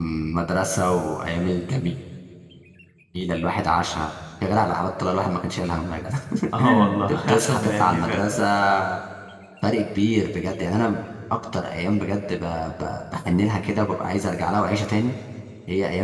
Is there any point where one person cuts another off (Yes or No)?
Yes